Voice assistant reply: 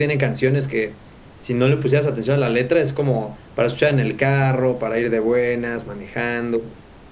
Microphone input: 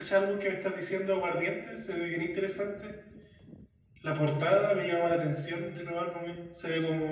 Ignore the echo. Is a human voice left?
Yes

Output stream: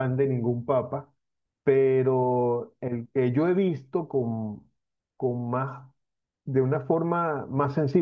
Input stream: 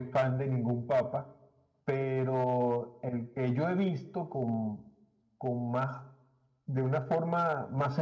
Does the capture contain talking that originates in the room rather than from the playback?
No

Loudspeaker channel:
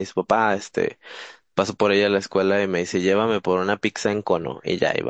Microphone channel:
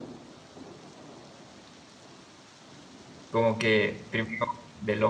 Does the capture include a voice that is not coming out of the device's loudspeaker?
Yes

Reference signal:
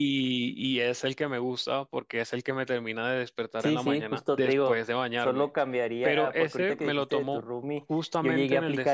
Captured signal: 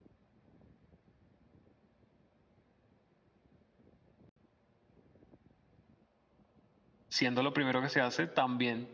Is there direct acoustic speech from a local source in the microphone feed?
Yes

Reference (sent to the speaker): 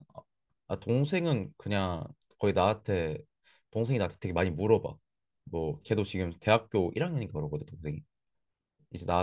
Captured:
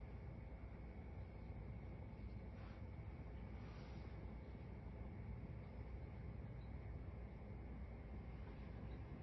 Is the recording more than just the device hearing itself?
No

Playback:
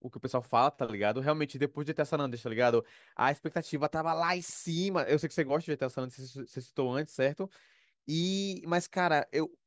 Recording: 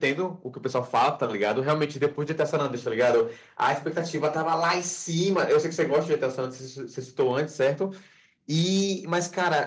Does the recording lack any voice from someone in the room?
Yes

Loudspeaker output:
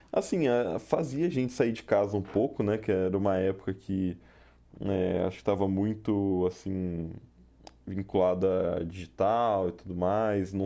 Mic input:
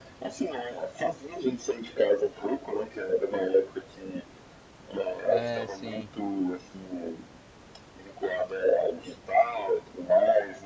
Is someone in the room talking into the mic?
Yes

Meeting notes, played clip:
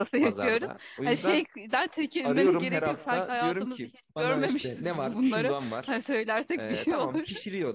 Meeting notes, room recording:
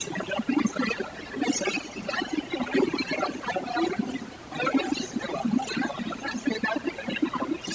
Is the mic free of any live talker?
Yes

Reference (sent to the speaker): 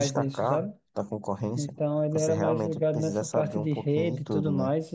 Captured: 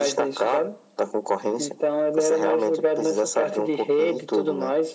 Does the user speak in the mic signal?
No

